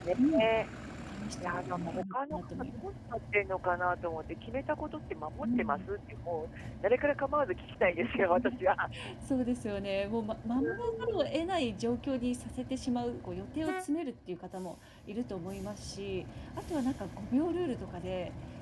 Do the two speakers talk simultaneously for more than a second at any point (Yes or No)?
Yes